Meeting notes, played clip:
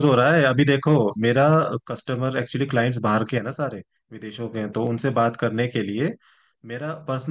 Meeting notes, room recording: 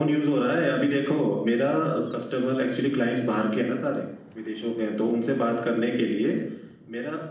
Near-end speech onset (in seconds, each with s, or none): none